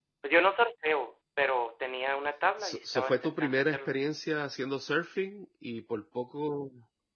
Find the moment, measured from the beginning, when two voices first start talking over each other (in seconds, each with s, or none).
2.6 s